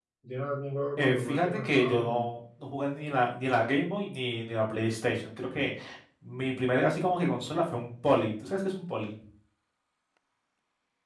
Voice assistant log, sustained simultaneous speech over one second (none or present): present